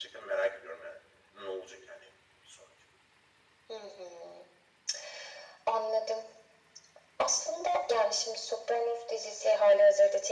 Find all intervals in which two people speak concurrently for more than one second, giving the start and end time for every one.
none

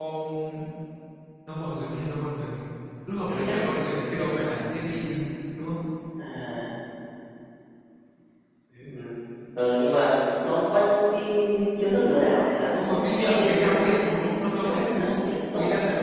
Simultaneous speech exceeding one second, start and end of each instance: 12.8-15.2

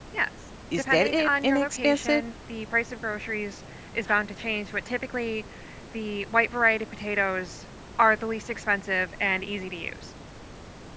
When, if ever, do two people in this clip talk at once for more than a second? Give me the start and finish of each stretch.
0.8-2.2

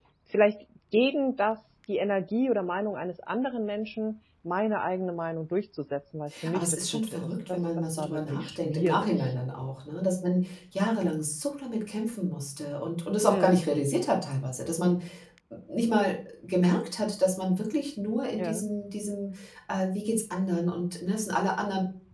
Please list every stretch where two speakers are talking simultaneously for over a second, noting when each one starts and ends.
6.5-9.1

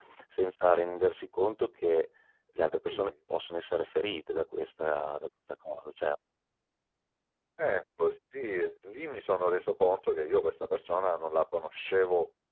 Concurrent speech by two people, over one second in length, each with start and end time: none

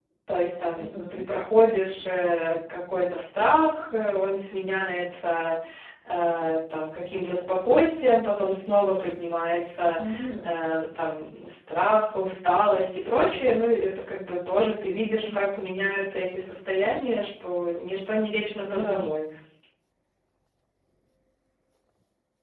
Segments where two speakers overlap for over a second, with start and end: none

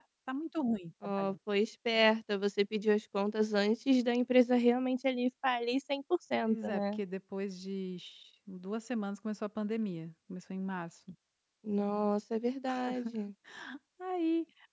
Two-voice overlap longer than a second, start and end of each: none

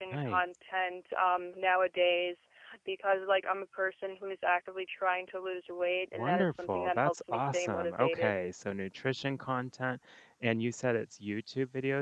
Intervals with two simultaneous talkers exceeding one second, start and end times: 6.1-8.3

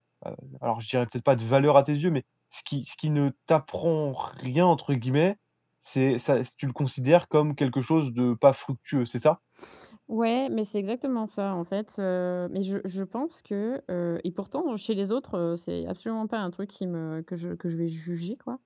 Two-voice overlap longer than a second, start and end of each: none

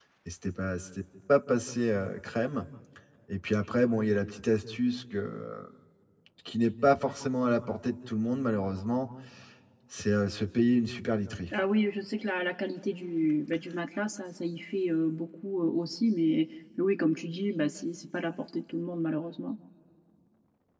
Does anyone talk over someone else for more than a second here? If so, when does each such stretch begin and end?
none

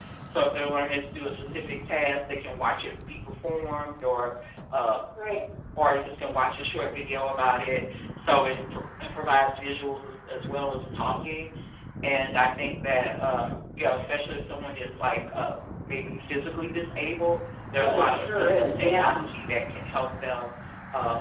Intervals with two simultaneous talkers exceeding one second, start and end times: 17.8-19.2

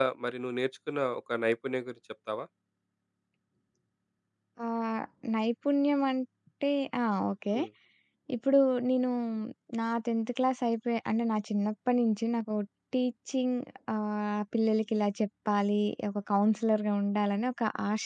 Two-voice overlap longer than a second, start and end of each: none

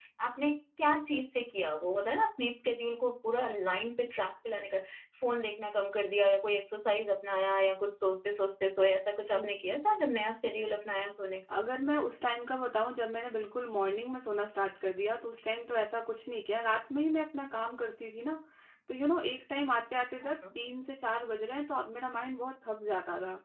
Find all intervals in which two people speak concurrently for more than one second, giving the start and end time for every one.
none

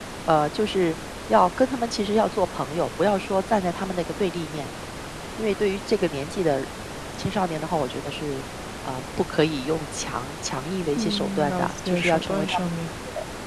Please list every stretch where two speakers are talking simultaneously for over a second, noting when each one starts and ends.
11.0-12.6

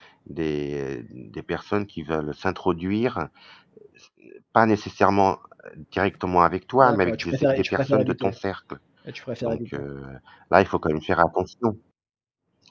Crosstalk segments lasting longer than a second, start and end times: 6.8-8.3

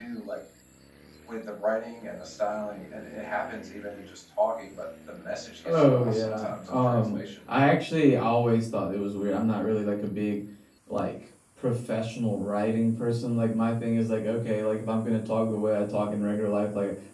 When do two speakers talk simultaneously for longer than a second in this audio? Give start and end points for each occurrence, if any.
5.6-7.2

